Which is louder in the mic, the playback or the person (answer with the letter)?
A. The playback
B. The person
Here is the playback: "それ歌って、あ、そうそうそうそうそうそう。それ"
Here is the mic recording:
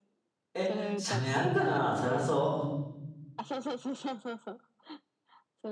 B